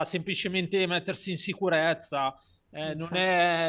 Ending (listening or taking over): listening